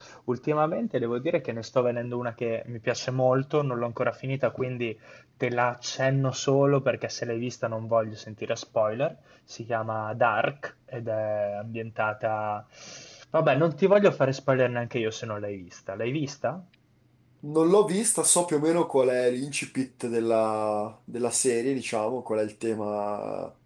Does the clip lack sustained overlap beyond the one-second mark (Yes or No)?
Yes